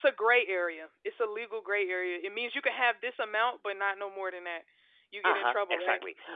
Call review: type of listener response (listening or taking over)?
taking over